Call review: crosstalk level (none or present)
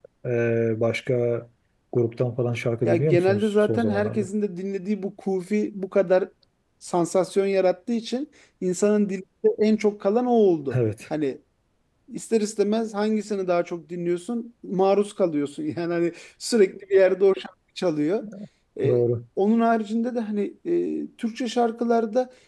present